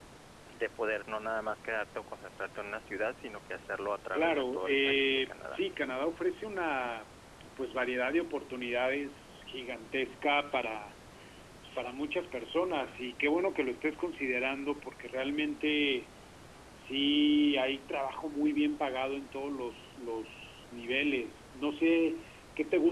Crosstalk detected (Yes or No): Yes